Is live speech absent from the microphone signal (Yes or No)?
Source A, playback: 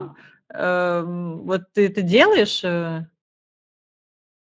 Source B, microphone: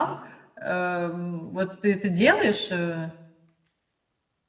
Yes